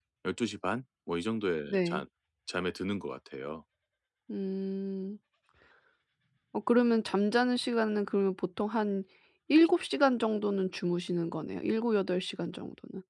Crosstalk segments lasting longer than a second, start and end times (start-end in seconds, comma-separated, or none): none